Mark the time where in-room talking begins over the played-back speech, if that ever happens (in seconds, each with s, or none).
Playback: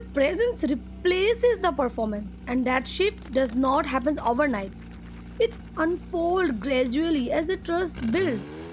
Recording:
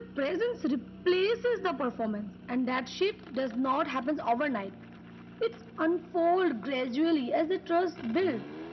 none